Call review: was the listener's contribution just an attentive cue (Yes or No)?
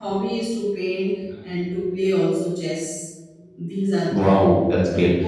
No